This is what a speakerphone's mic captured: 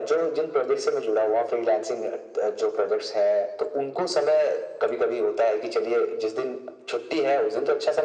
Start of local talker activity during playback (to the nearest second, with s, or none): none